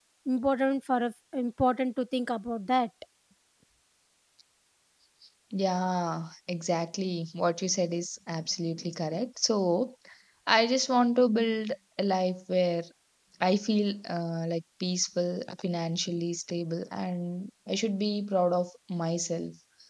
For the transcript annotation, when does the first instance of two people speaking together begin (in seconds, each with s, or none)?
none